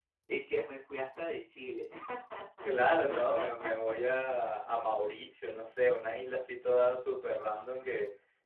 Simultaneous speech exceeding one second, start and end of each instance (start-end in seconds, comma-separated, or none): none